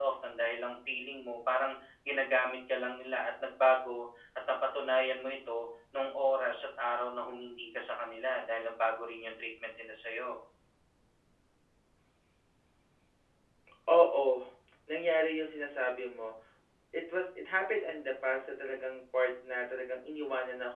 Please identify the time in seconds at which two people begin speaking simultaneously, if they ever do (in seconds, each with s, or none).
none